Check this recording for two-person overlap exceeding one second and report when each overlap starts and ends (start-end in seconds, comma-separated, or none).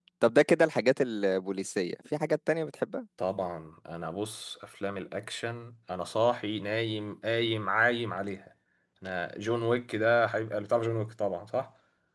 none